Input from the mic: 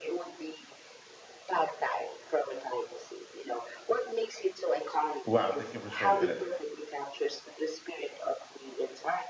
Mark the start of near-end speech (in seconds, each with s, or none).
5.2 s